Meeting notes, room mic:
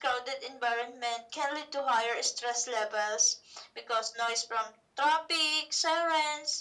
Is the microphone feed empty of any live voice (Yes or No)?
Yes